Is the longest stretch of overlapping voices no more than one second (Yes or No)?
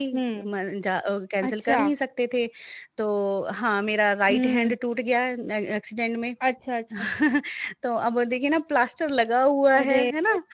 Yes